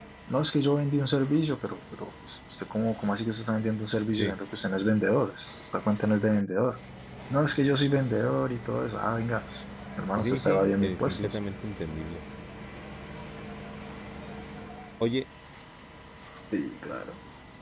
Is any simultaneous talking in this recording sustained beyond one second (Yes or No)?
Yes